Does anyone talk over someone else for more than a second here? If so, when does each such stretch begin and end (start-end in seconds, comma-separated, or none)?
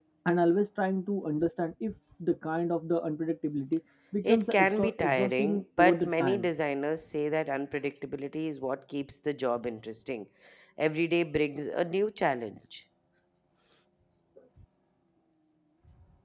4.2-6.5